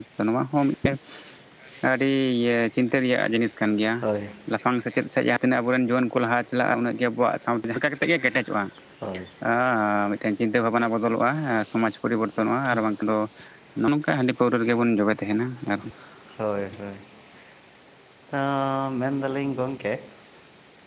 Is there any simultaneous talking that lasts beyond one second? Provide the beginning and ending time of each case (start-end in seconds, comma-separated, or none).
none